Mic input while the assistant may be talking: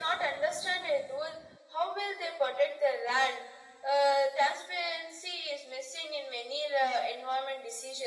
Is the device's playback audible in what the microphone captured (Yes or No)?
Yes